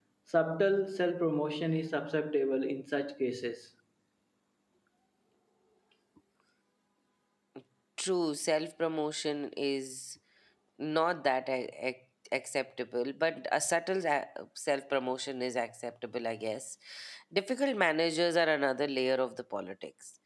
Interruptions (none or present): none